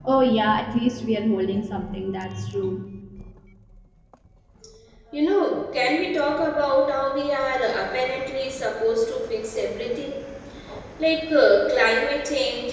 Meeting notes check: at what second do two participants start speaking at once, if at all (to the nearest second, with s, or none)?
none